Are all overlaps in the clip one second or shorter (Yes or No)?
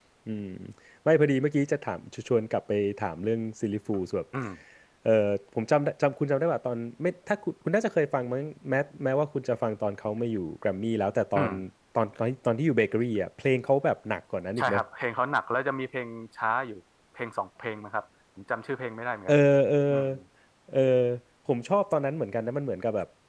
Yes